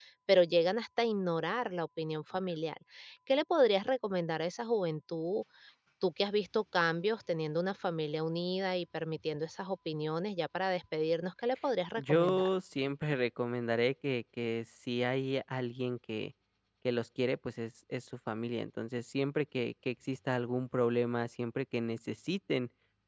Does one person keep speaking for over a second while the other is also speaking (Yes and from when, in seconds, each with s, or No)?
No